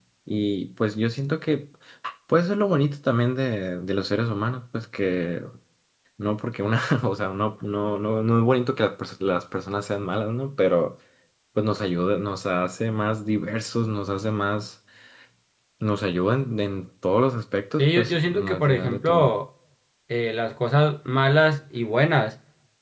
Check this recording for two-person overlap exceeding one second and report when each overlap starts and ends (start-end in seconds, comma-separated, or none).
17.8-19.3